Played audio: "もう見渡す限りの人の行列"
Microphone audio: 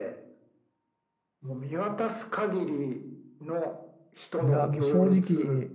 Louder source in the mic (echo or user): user